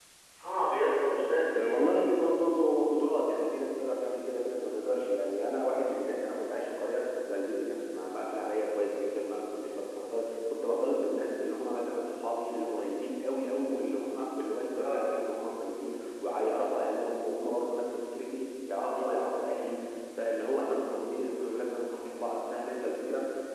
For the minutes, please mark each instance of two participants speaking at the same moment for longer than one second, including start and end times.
none

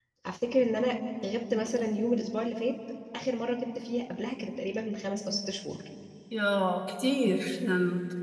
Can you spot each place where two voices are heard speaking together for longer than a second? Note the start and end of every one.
none

